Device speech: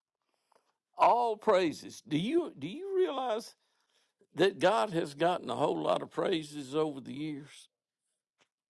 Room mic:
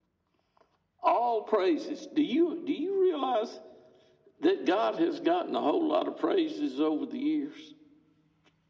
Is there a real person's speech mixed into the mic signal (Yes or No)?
No